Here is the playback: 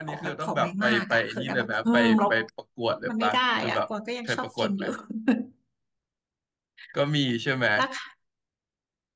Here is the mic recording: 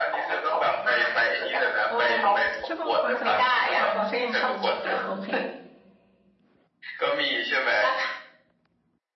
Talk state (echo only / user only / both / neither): both